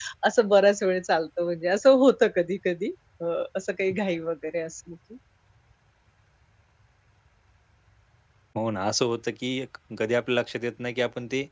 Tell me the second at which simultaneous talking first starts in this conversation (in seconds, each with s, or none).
none